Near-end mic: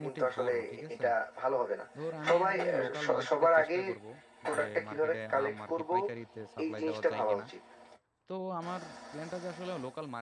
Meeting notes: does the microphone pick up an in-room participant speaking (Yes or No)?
Yes